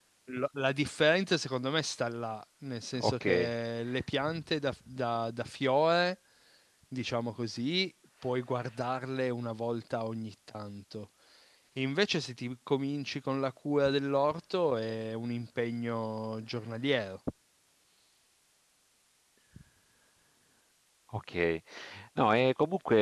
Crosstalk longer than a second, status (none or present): none